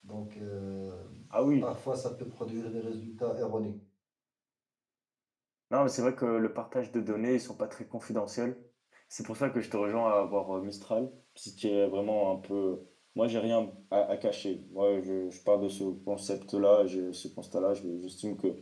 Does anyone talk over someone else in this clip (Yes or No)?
No